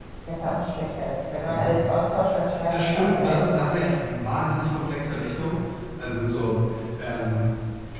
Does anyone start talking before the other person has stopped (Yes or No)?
Yes